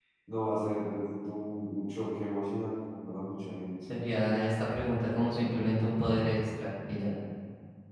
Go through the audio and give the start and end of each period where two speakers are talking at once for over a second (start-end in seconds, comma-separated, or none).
none